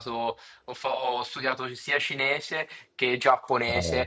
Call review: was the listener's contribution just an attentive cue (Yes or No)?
Yes